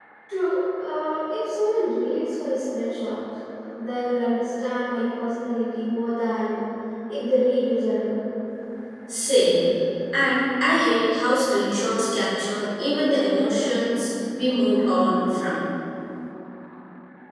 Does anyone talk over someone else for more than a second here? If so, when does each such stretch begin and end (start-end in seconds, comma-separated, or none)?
none